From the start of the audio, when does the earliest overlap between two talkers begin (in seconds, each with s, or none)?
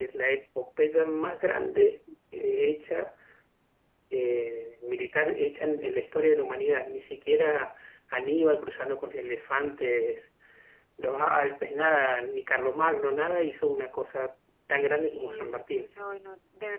14.7 s